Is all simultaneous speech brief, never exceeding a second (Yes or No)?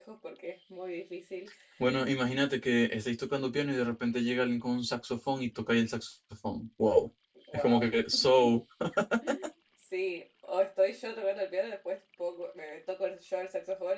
Yes